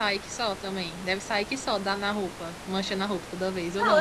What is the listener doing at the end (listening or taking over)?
taking over